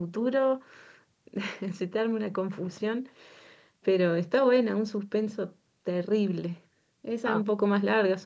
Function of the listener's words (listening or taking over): listening